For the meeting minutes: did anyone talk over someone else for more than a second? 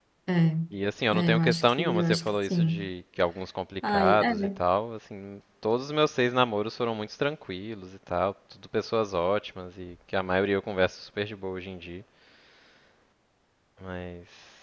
Yes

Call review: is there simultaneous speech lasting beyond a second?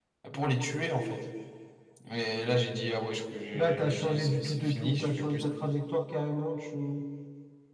Yes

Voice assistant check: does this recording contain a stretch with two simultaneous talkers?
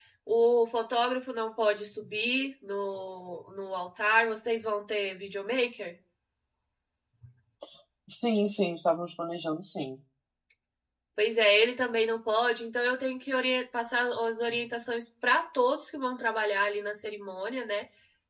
No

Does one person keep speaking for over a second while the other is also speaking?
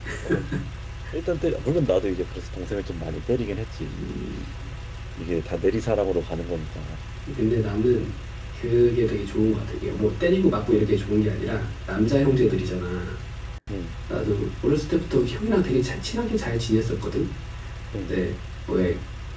No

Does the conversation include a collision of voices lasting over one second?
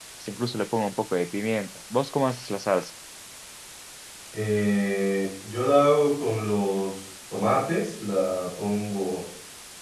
No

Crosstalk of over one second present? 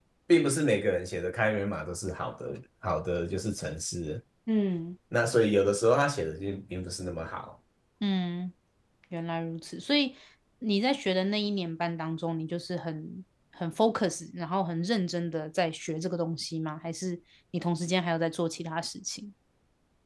No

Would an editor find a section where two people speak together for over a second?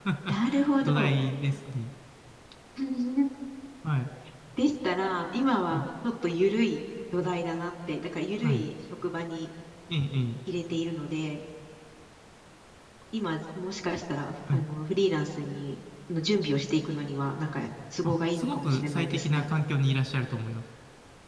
Yes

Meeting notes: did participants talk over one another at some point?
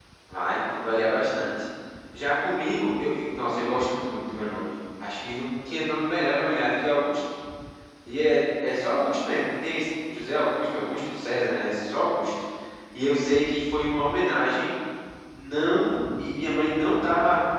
No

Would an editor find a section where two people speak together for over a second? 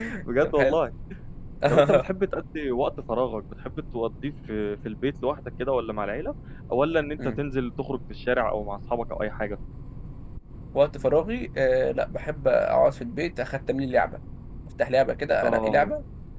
No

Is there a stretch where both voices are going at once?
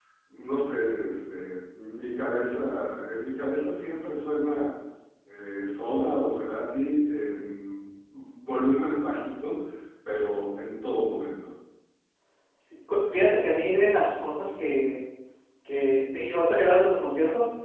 No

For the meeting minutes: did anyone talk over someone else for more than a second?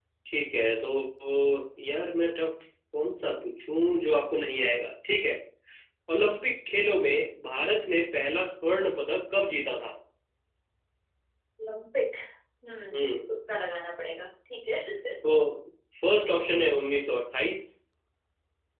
No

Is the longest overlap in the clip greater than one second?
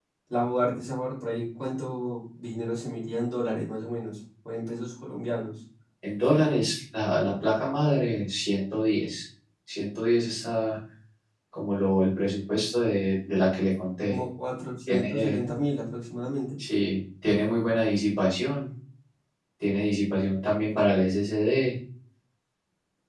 No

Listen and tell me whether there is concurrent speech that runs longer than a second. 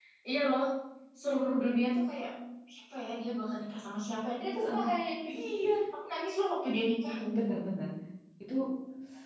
No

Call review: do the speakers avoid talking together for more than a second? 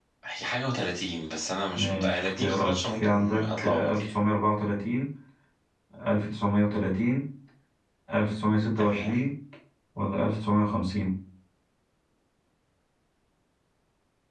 No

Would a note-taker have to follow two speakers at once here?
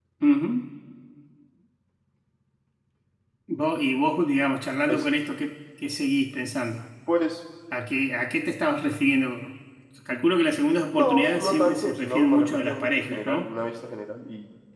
Yes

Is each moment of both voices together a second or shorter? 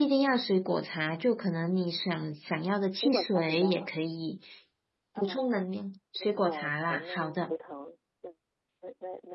No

